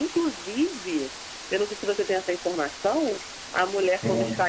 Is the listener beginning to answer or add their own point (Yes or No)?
No